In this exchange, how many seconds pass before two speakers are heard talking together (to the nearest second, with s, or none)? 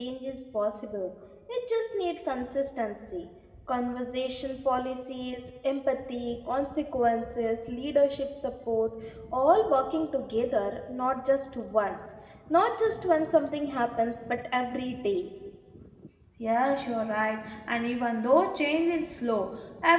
none